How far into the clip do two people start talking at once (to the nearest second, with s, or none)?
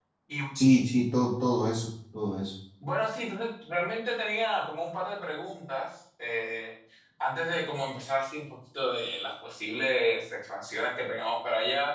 none